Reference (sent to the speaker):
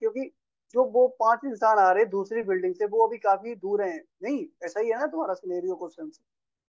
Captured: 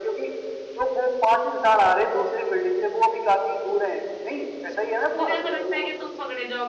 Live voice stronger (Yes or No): No